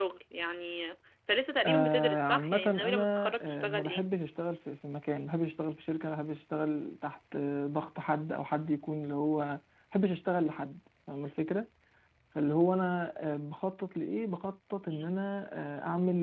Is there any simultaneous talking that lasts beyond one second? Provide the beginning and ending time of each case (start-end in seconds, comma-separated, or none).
1.6-4.0